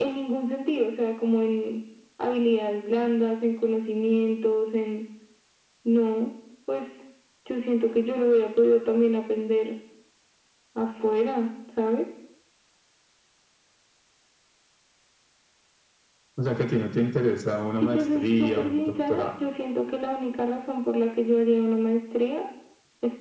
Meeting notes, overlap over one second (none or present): present